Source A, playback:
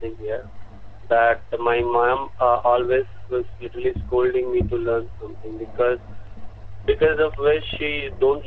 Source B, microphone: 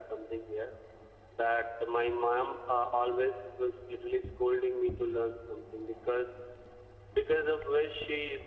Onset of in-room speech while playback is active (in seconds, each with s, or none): none